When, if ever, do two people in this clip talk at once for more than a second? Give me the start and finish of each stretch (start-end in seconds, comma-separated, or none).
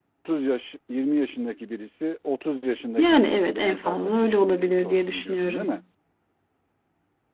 3.0-5.8